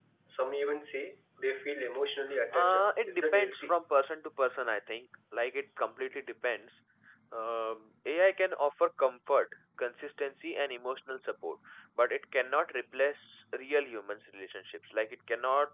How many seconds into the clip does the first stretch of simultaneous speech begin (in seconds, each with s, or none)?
2.5 s